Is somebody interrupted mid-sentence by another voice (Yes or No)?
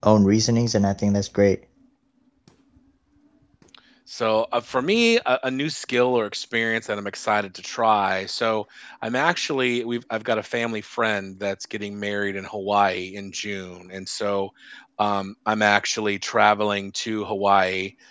No